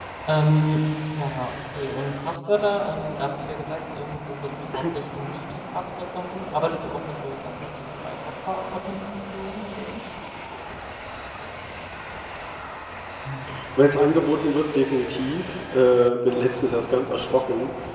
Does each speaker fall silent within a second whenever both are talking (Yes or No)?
Yes